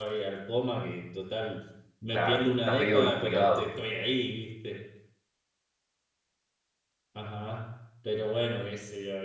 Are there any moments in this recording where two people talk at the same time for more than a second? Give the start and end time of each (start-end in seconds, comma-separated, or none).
2.1-3.6